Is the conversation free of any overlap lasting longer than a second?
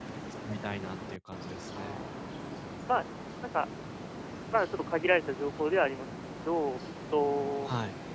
Yes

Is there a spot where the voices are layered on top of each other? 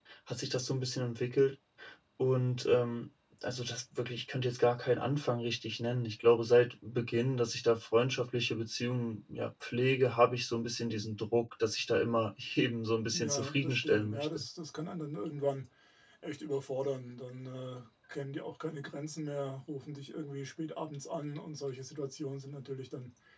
Yes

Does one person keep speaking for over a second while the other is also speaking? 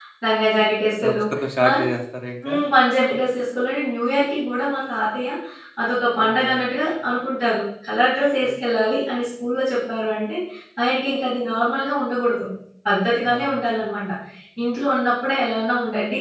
No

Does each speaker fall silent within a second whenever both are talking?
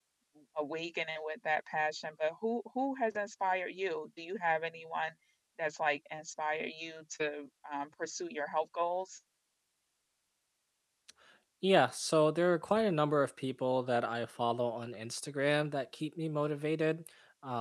Yes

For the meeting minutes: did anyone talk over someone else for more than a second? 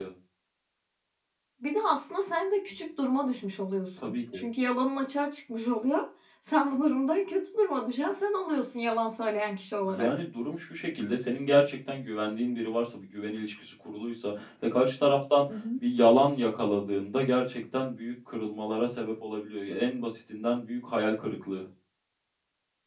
No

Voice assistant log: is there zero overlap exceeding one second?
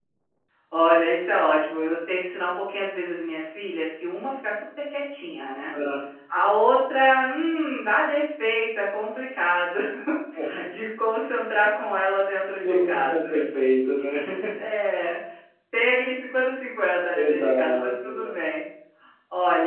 No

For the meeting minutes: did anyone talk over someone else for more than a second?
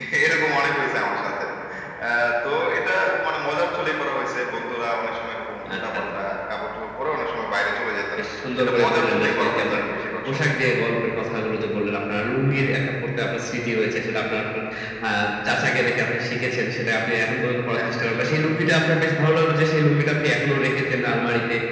Yes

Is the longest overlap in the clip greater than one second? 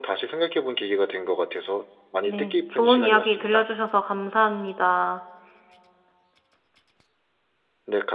Yes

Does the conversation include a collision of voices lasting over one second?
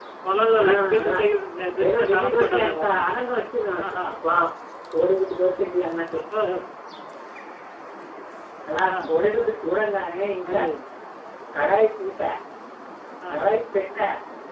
Yes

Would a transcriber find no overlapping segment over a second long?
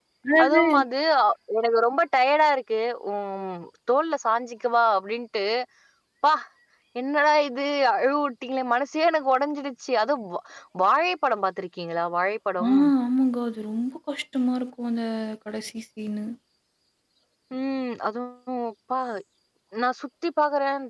Yes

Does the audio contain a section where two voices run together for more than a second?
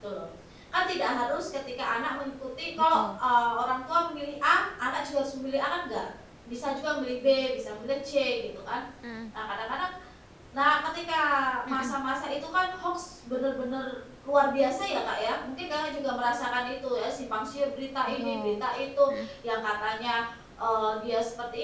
No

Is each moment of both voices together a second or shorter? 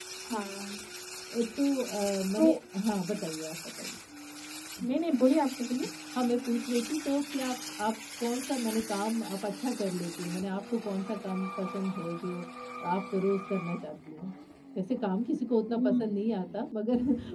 Yes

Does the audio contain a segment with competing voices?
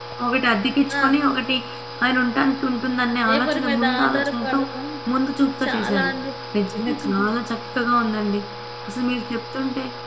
Yes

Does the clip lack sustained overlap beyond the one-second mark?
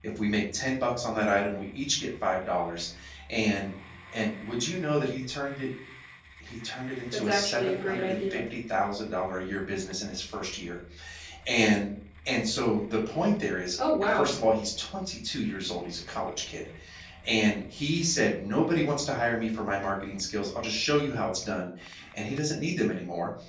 No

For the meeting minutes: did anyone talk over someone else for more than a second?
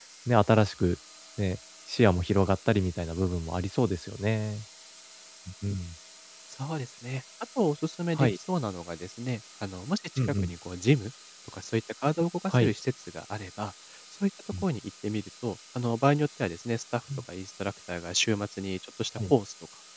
No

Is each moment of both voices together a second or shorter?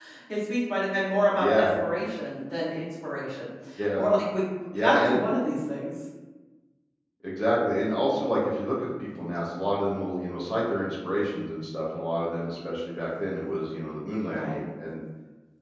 Yes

